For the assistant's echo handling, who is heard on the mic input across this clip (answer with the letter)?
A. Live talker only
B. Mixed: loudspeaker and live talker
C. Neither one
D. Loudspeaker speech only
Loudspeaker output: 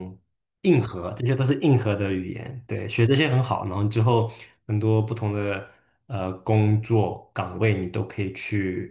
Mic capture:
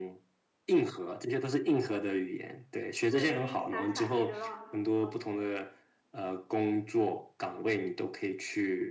B